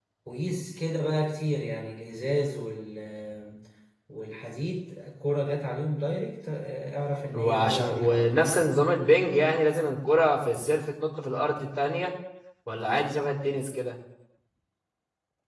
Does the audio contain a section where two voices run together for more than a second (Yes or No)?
Yes